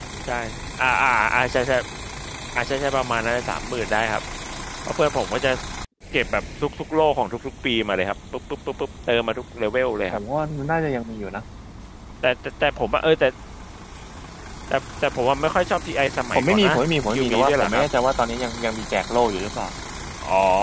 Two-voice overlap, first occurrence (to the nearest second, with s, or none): 16 s